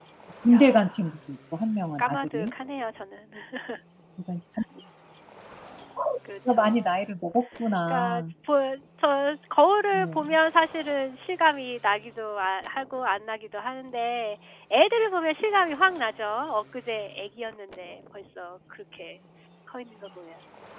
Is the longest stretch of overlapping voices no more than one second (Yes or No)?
Yes